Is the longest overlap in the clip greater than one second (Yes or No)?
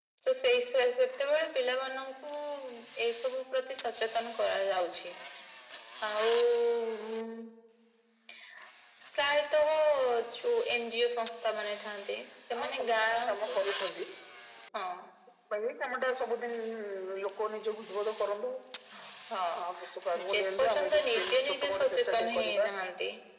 Yes